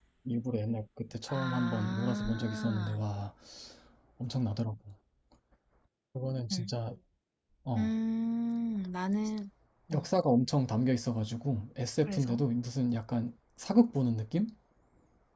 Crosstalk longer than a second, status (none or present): present